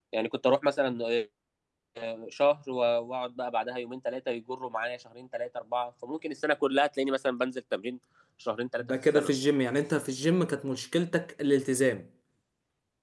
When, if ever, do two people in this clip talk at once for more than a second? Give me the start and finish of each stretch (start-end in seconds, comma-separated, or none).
none